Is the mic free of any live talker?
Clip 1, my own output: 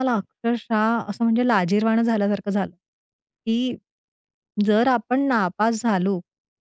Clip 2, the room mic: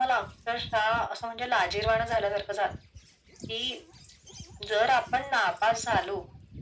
Yes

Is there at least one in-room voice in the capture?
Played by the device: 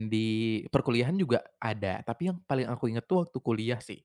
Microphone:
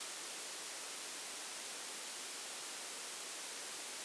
No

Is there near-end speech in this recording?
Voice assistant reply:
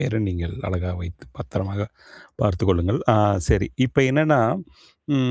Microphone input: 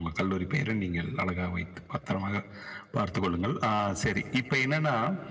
No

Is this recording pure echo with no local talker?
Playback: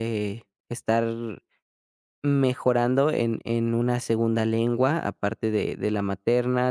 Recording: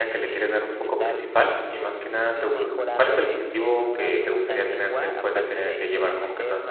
No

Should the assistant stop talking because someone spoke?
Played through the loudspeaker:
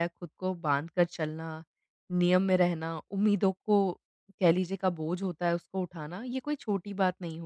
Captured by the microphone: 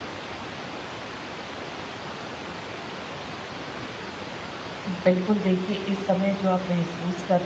Yes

